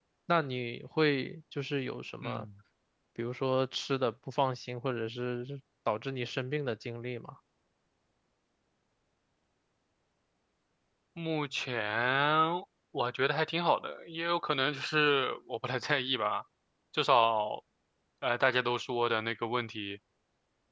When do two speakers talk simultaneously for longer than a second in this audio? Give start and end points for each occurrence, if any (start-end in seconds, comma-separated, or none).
none